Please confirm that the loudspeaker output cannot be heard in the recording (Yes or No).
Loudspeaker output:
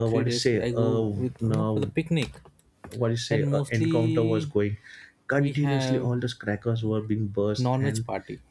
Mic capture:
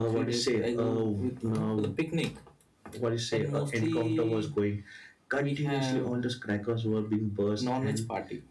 No